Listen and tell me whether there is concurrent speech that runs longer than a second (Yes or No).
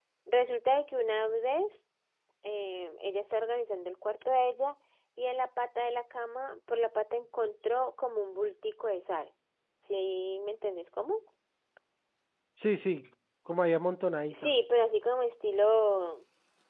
No